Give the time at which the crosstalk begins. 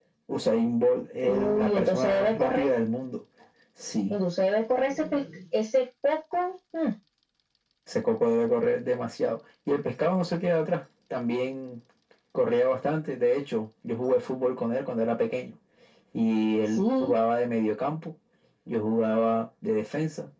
1.3 s

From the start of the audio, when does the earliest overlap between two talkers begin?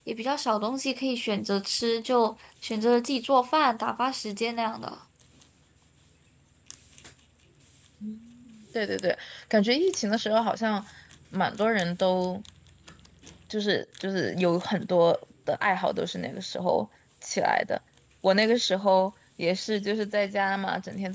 none

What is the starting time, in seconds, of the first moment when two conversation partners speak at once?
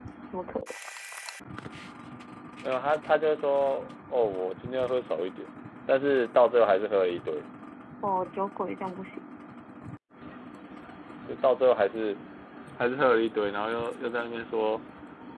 none

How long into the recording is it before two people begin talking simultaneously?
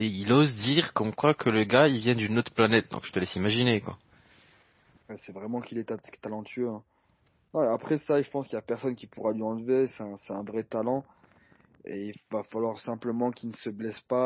none

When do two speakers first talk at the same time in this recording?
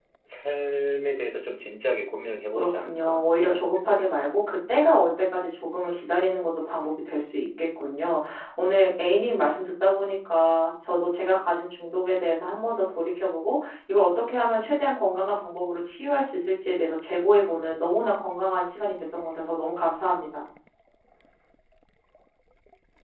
2.5 s

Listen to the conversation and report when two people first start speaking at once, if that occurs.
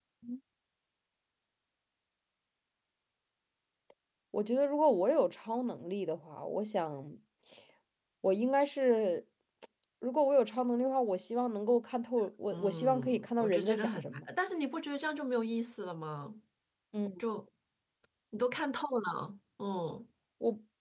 12.5 s

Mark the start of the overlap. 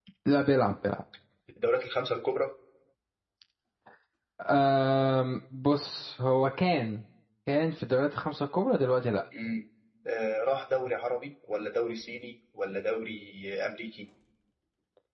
none

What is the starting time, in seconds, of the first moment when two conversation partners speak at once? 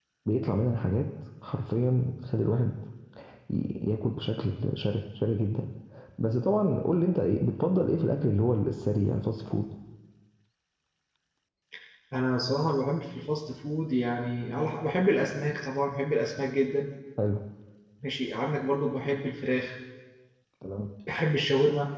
none

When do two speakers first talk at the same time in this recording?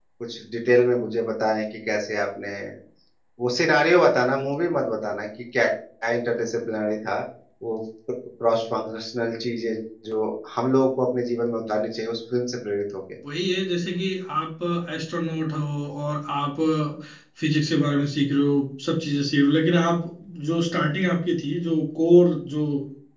none

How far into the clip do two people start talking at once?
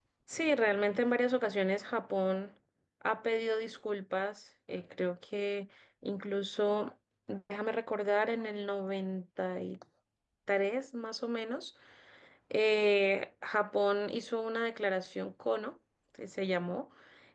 none

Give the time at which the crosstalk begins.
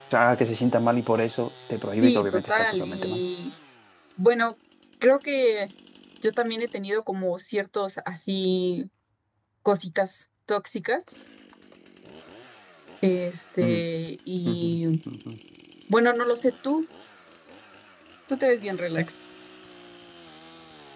2.0 s

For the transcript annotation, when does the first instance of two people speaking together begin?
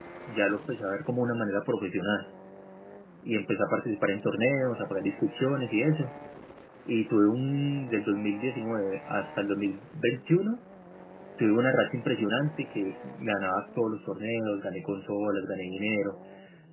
none

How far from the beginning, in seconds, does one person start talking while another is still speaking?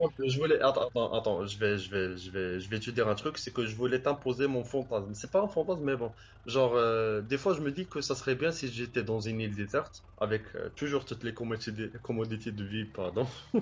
none

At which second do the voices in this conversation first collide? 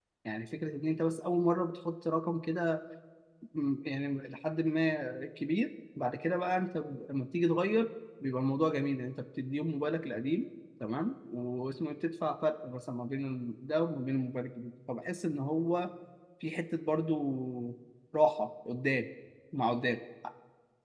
none

